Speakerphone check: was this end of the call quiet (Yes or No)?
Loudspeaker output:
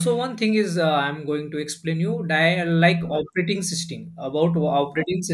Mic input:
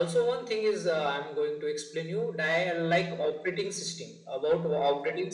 Yes